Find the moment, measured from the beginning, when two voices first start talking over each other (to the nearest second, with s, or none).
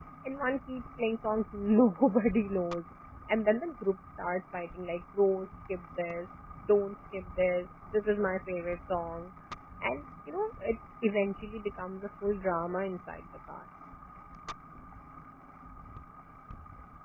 none